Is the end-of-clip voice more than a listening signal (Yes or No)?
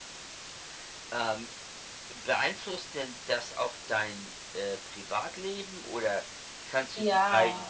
No